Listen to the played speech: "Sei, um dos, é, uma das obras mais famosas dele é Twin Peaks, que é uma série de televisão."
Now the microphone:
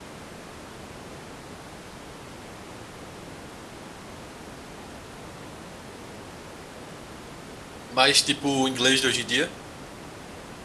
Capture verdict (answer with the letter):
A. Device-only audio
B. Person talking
B